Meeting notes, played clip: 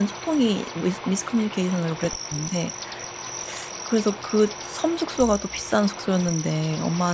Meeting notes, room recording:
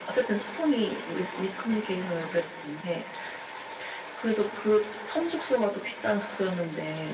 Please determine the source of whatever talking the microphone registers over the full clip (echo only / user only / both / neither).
echo only